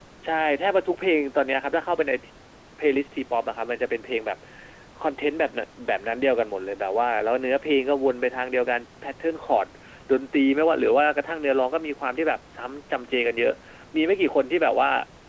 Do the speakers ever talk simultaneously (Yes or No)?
No